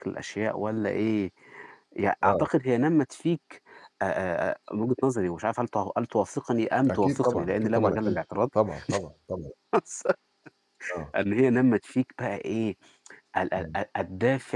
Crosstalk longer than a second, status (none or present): present